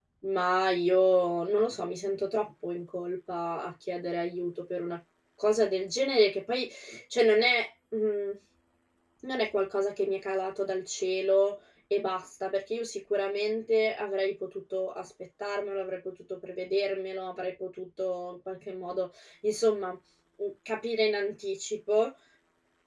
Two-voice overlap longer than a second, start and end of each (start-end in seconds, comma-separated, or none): none